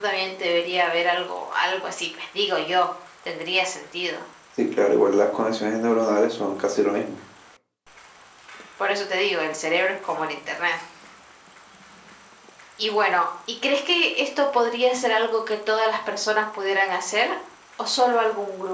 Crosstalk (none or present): none